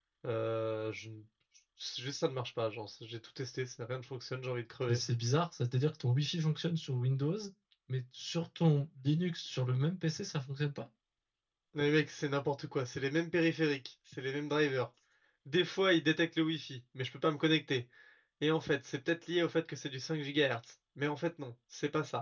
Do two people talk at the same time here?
No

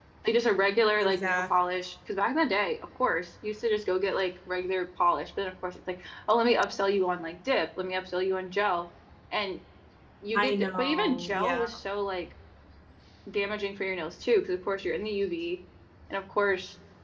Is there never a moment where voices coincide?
No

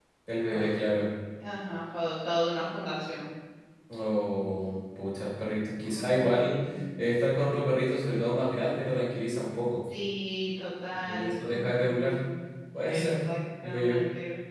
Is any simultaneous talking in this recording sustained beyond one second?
Yes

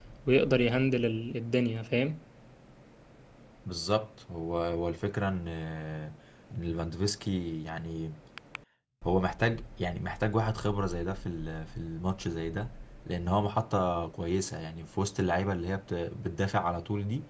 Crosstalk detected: No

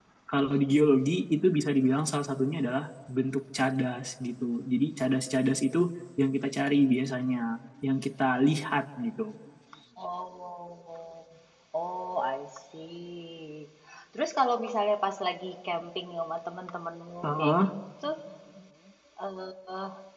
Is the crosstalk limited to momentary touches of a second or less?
Yes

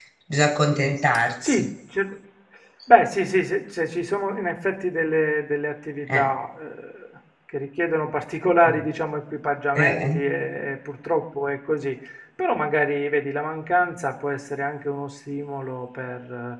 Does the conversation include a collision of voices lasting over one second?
No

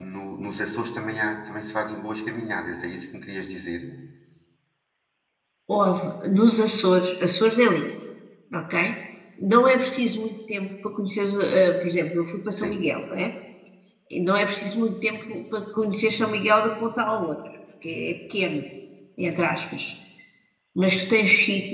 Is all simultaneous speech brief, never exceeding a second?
Yes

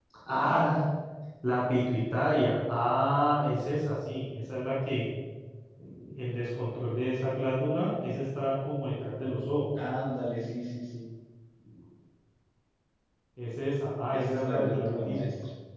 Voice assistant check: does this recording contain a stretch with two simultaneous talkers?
Yes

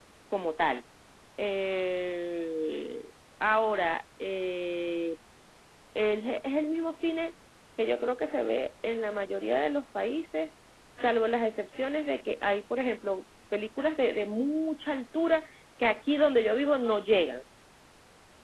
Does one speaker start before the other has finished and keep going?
No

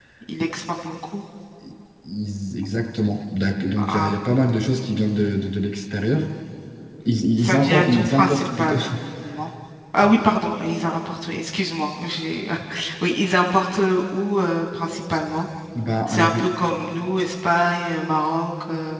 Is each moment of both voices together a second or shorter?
No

